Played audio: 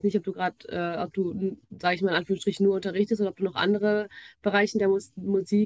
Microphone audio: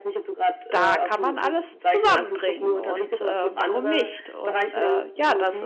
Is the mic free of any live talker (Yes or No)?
No